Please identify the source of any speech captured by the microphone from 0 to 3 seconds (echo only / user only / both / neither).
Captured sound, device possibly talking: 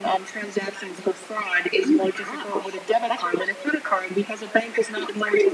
echo only